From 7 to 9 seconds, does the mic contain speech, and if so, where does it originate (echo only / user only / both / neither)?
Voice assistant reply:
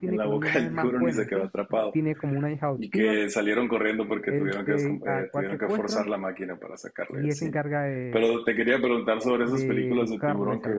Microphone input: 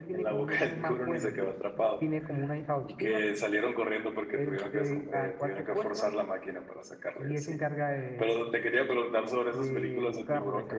echo only